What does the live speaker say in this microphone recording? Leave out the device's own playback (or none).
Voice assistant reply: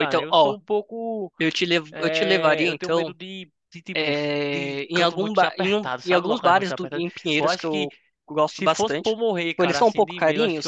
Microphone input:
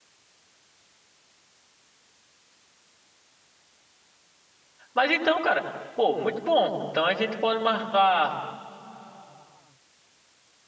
Mas então, cara, pô, muito bom. Então a gente pode marcar